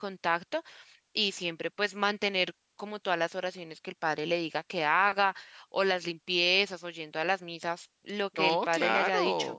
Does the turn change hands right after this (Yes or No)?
Yes